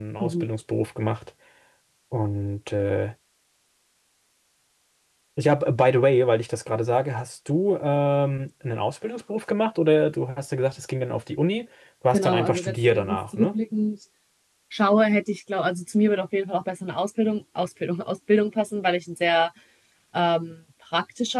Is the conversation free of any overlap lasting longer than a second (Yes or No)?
No